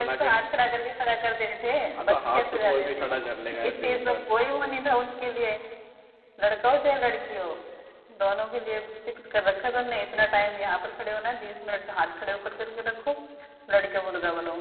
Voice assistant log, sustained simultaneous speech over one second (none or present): present